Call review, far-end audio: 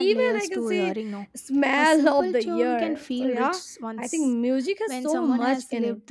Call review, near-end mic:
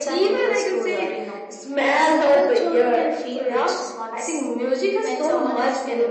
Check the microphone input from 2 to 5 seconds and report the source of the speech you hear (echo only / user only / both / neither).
echo only